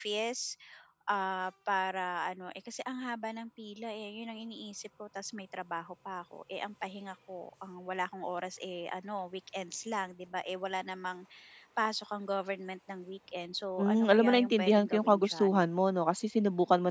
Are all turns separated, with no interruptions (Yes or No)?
No